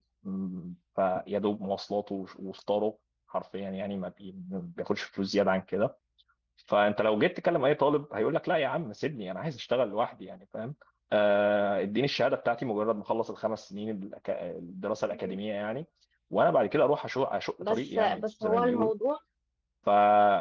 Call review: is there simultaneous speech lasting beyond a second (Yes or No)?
Yes